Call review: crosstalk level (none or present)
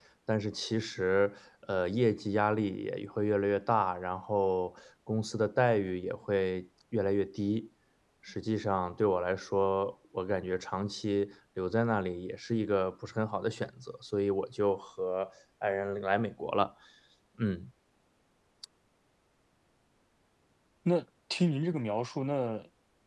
none